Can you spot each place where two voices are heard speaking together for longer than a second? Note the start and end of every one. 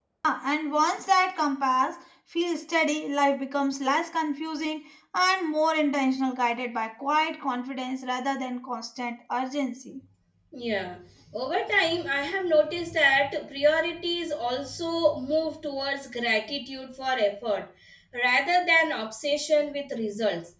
none

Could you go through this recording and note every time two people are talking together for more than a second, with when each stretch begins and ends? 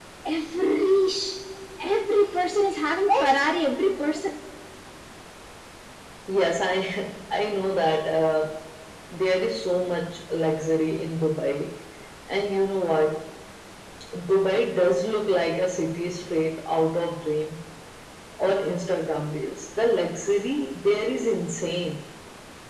none

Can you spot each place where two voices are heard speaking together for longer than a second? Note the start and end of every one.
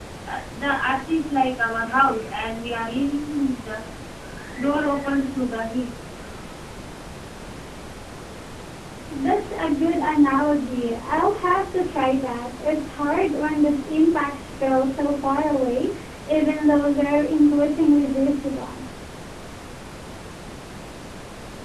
none

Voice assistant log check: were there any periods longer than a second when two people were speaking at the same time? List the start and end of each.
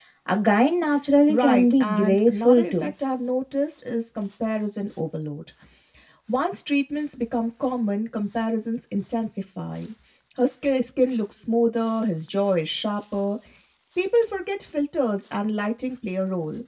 1.3-2.9

